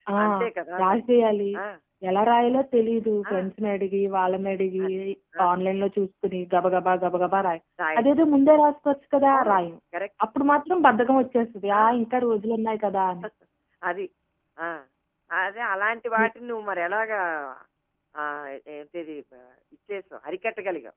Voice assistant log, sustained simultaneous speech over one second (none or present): none